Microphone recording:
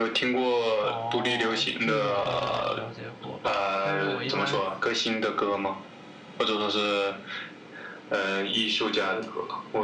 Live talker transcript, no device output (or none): 哦，这个我倒是没有了解过，但是我一般